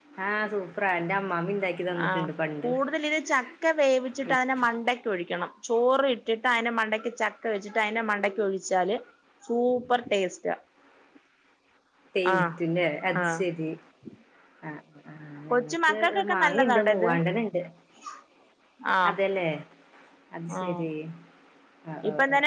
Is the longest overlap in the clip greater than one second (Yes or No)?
Yes